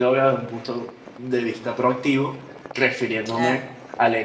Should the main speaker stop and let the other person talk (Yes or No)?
No